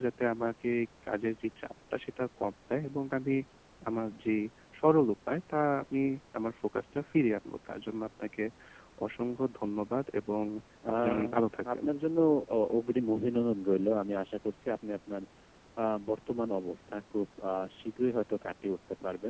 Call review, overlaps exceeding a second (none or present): none